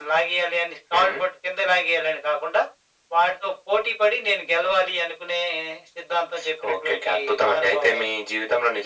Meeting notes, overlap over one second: present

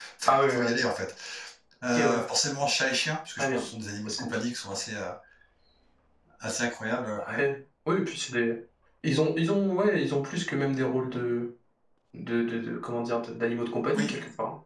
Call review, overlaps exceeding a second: none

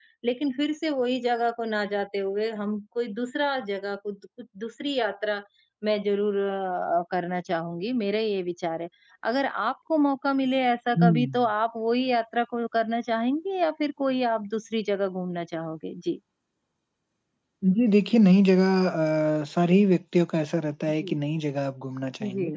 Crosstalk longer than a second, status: none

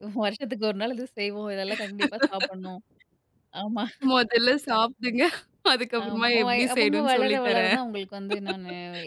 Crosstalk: present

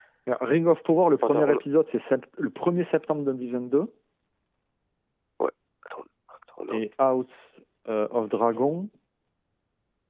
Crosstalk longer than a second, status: none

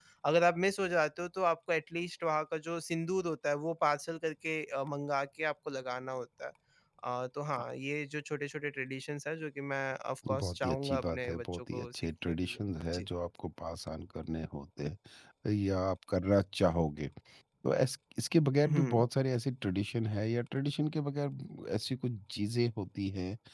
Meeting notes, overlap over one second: present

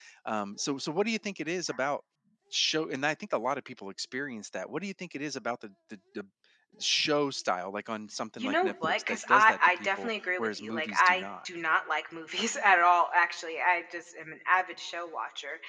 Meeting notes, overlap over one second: present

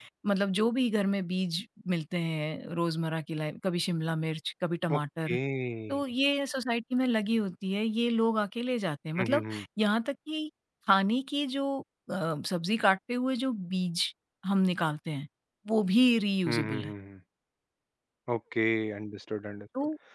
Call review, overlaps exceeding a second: none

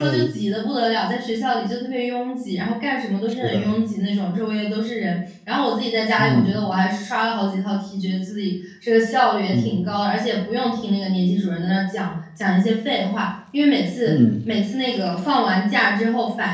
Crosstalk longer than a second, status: none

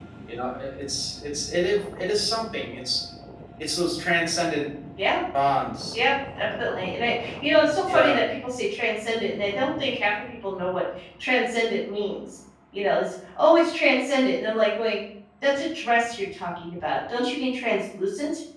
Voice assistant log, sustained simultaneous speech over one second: none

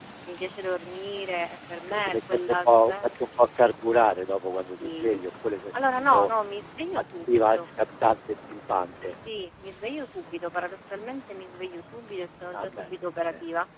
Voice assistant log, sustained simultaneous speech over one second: present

